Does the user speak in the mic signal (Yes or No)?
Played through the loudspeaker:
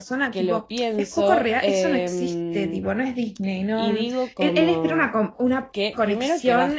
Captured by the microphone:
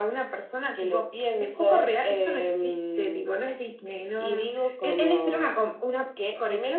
No